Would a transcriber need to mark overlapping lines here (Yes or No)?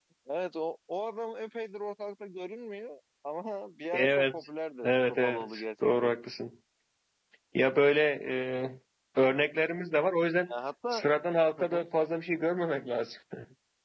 Yes